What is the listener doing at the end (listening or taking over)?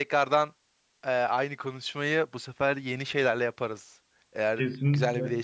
taking over